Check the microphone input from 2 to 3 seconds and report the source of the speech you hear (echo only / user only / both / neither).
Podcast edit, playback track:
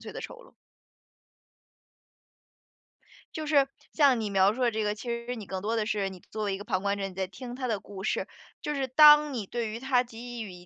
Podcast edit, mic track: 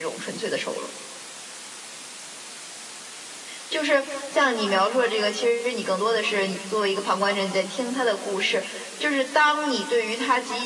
neither